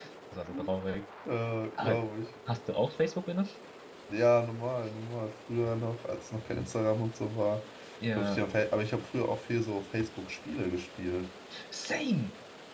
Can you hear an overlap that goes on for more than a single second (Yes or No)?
No